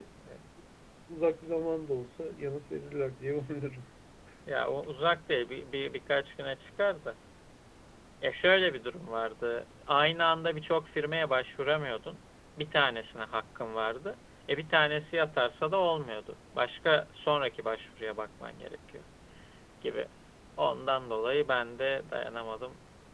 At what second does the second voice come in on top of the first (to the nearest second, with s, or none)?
none